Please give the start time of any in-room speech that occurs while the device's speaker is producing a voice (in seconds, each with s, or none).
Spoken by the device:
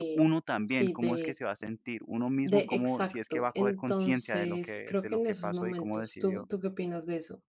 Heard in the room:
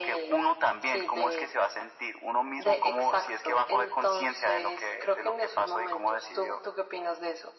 none